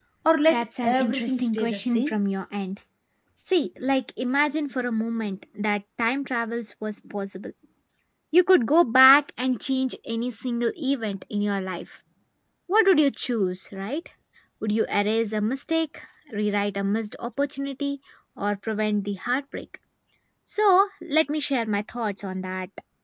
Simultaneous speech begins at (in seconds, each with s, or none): 0.5 s